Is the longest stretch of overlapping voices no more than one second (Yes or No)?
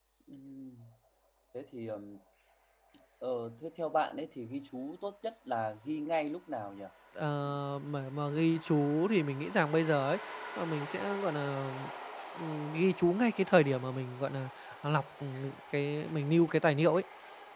Yes